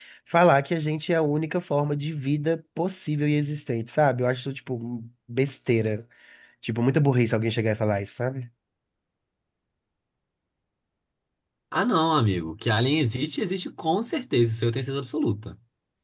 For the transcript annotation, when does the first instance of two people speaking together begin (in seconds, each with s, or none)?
none